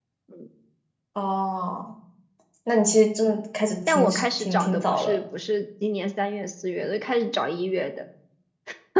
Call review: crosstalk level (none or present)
present